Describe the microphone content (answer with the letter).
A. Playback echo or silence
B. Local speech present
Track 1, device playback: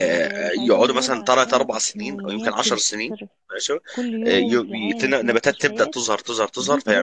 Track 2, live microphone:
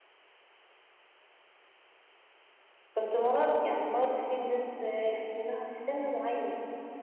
B